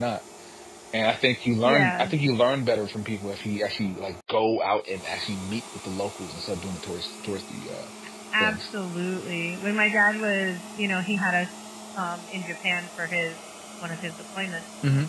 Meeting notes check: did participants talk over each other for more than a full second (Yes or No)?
No